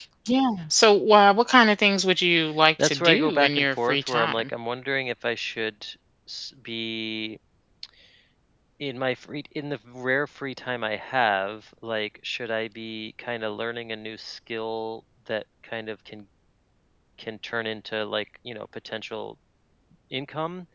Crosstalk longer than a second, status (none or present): present